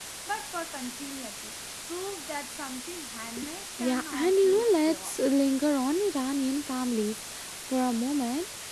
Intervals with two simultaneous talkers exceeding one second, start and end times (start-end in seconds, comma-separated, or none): 3.8-5.2